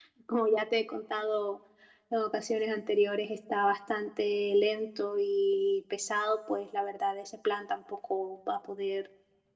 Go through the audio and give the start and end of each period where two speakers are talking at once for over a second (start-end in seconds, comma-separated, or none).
none